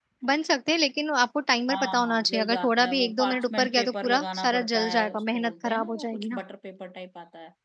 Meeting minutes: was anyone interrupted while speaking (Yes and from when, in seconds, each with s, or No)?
Yes, from 1.7 s